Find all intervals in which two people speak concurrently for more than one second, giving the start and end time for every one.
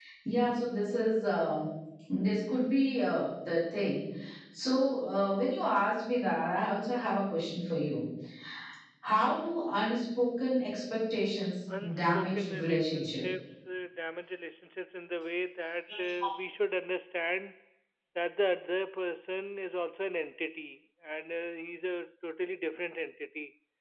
11.8-13.3

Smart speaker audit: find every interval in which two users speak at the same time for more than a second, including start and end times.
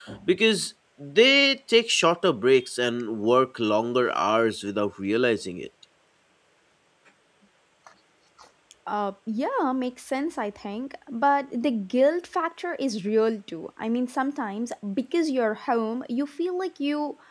none

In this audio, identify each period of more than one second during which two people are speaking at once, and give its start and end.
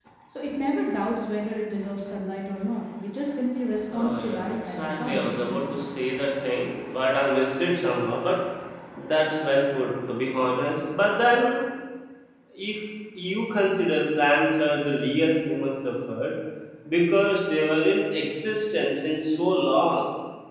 3.9-5.7

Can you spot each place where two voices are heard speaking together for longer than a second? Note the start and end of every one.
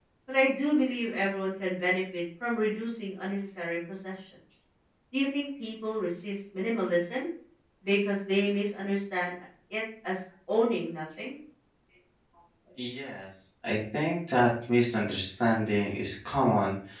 none

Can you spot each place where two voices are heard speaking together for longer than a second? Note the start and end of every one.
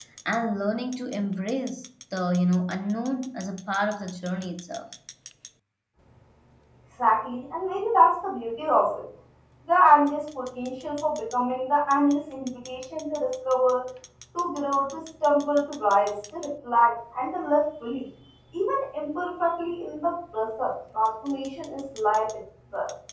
none

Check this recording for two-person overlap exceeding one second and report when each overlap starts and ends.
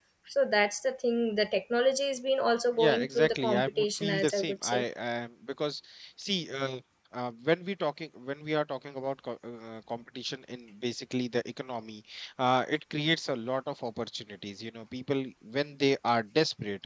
2.8-4.8

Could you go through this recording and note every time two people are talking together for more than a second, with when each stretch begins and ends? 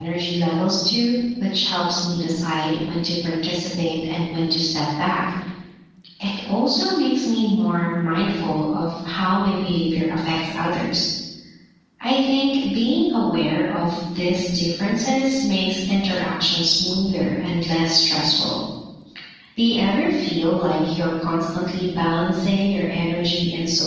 none

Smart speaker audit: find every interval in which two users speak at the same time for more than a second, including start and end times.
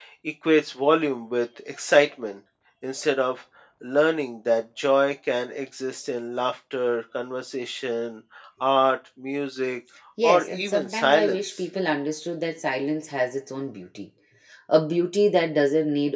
10.2-11.6

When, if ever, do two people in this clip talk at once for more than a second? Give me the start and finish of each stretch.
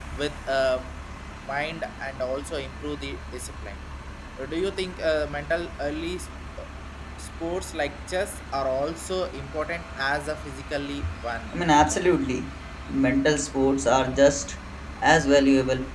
none

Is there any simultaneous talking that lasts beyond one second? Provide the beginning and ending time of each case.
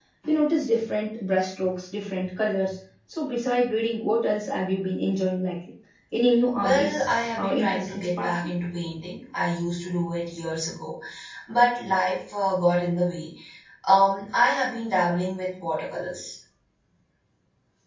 6.6-8.3

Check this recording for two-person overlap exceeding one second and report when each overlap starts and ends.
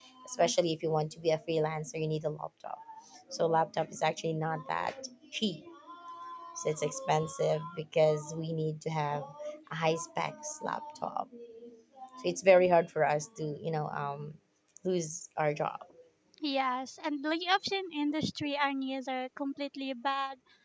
none

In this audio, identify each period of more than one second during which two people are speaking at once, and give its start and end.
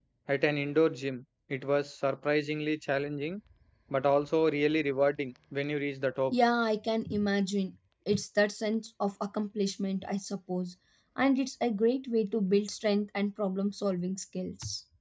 none

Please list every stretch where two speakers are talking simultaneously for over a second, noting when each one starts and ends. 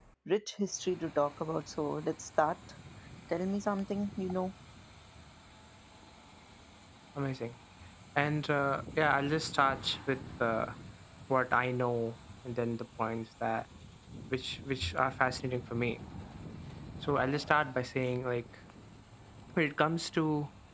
none

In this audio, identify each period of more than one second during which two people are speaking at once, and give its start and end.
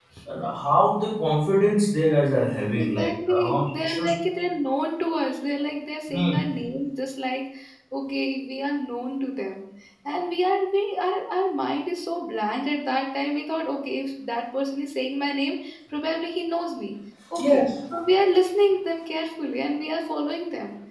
2.8-4.1

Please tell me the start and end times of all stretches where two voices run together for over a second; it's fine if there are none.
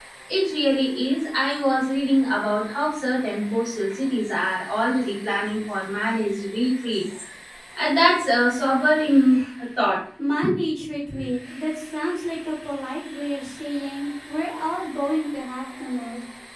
none

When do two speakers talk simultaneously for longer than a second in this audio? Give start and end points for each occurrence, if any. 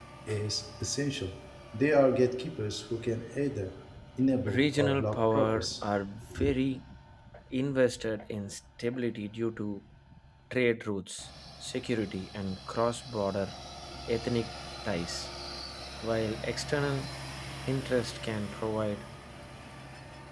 4.5-5.8

